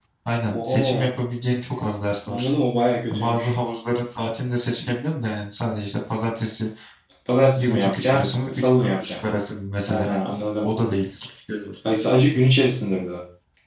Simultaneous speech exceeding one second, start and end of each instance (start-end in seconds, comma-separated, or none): 7.5-9.2